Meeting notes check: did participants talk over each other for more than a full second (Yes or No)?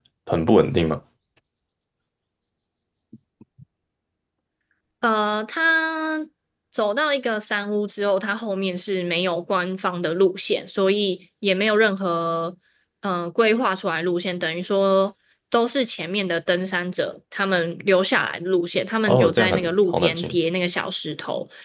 Yes